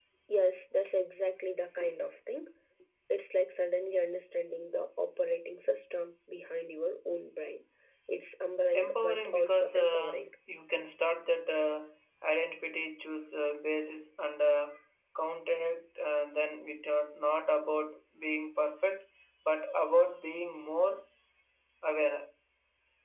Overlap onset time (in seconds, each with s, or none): 8.7 s